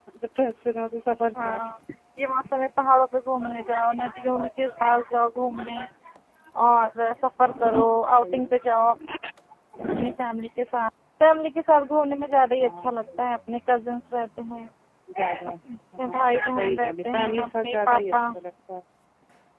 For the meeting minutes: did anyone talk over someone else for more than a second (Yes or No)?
Yes